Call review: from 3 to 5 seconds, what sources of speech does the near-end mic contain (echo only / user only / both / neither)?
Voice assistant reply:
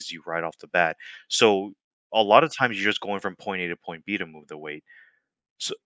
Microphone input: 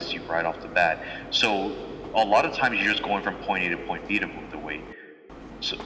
echo only